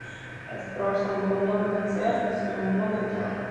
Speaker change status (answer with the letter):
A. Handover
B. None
B